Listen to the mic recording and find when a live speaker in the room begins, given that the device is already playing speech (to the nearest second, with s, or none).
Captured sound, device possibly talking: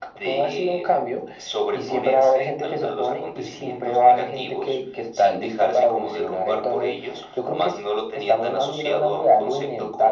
none